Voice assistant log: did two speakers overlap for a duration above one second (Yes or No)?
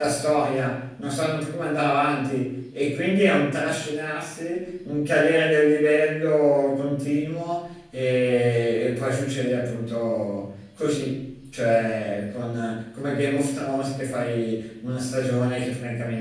No